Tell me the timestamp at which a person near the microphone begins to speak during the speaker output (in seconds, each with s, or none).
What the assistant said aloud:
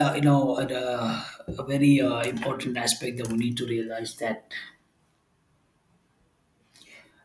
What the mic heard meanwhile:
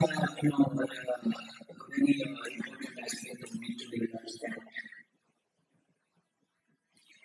none